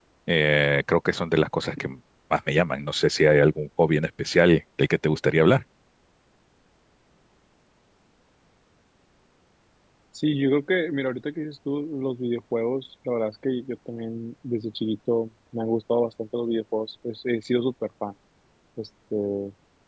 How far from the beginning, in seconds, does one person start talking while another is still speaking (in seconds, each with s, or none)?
none